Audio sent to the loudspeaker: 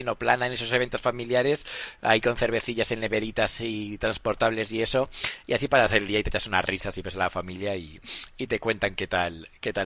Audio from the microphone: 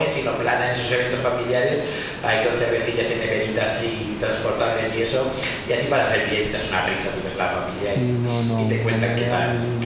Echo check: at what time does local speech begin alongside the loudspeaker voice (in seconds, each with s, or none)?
7.5 s